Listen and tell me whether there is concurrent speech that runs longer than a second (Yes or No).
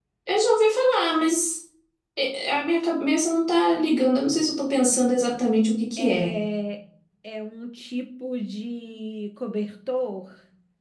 No